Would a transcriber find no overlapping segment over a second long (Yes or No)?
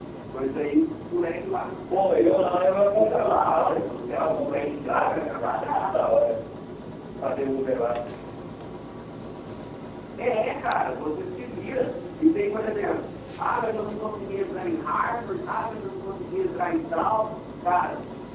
No